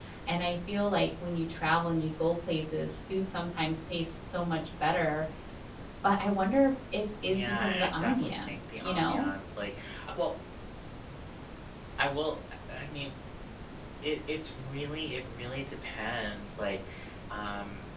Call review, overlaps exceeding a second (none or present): present